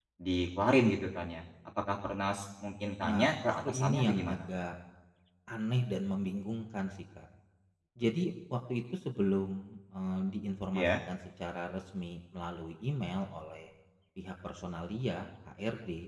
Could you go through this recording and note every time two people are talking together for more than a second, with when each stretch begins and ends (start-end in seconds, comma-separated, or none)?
3.1-4.4